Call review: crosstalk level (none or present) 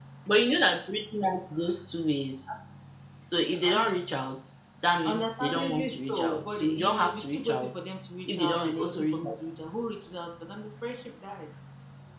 present